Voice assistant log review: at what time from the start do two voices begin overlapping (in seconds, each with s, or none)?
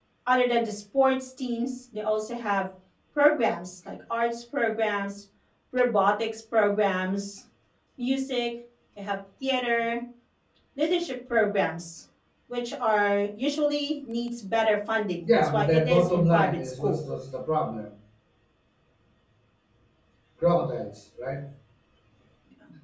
15.2 s